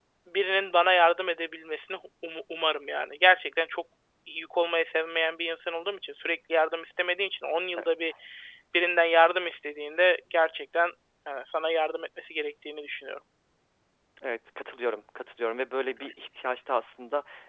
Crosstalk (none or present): none